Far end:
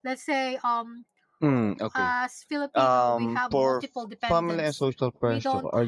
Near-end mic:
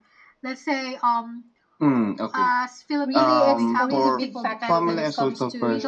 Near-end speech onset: 3.0 s

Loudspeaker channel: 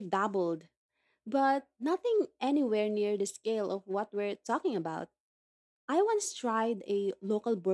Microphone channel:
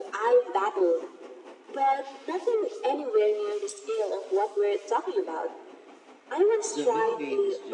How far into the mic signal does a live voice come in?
6.7 s

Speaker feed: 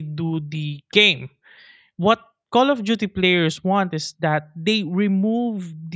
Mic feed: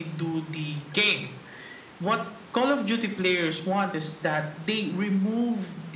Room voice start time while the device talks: none

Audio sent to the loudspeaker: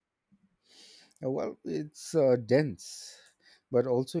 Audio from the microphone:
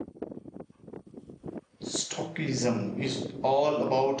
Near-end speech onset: 1.8 s

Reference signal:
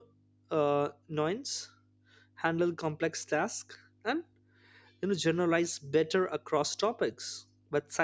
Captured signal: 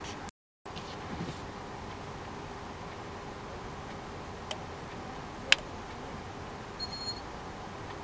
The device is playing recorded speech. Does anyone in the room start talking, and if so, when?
none

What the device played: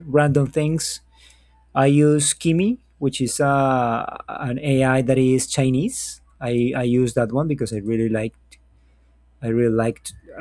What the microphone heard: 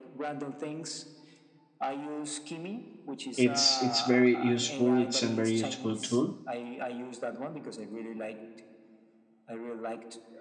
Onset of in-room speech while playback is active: 3.4 s

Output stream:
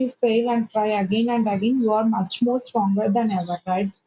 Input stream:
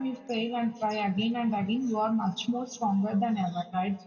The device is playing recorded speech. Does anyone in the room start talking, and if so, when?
none

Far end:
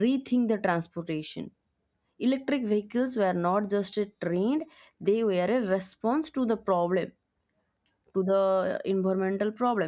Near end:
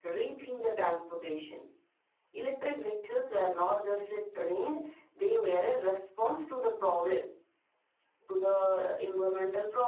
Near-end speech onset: none

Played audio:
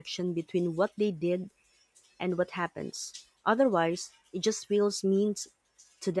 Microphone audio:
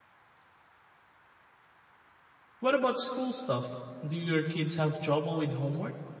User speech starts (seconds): 2.6 s

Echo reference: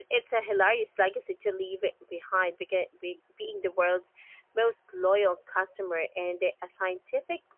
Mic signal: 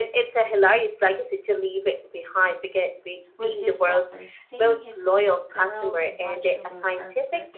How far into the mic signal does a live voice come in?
3.4 s

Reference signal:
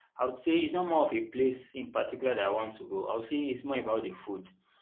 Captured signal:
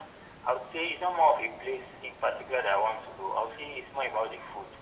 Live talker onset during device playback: none

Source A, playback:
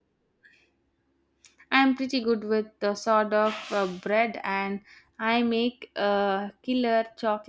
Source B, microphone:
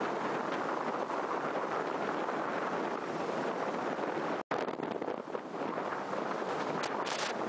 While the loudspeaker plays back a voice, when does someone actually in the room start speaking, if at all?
none

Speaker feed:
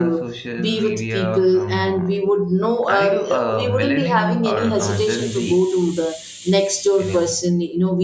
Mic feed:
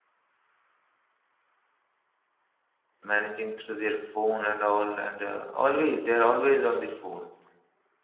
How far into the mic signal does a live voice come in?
3.0 s

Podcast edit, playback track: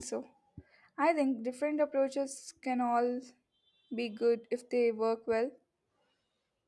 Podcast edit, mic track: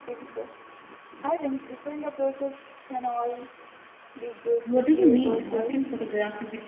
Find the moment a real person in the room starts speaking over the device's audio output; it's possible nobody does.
4.6 s

